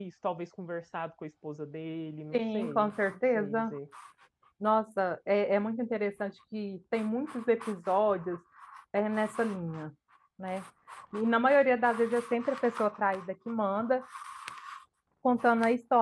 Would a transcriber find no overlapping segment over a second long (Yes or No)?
No